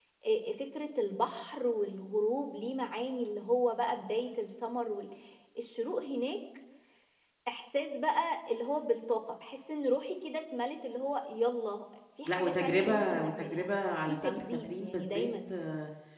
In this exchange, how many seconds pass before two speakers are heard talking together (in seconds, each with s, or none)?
12.2 s